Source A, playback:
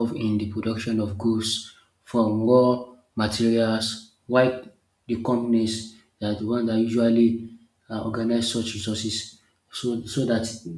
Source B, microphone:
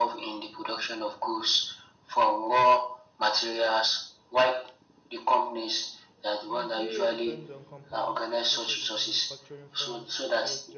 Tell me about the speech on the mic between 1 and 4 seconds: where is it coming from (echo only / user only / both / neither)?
echo only